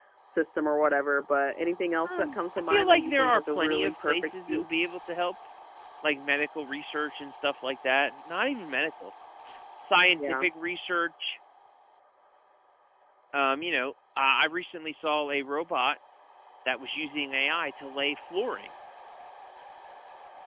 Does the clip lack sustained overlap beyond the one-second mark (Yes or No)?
No